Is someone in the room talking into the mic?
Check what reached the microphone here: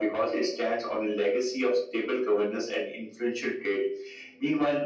No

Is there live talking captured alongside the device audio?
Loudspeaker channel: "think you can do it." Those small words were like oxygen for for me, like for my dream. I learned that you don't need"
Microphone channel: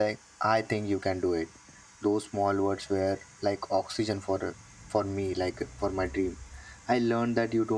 No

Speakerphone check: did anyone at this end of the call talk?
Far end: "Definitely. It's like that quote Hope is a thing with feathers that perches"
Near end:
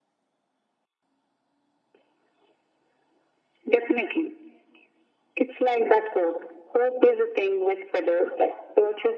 No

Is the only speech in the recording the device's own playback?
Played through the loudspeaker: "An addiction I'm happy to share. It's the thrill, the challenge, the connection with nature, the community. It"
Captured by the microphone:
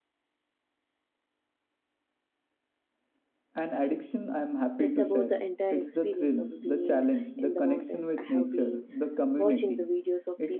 No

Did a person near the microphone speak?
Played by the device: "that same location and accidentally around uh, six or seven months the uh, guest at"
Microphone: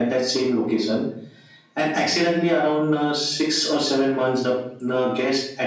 No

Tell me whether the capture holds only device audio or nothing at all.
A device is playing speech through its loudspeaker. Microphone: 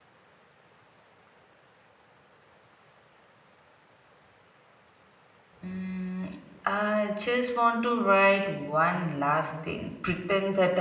No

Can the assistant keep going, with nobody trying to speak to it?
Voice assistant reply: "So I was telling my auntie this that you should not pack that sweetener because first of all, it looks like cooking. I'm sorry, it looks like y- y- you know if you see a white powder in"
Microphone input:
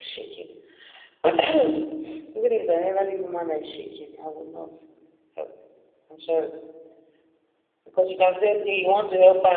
No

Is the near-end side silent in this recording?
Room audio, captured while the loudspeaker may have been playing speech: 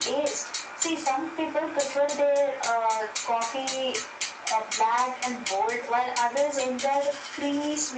Yes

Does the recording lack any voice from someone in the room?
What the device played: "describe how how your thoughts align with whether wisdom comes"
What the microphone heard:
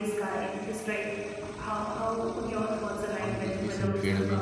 No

